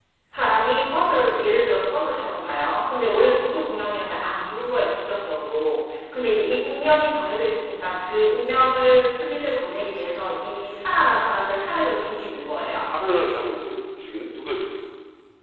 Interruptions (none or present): none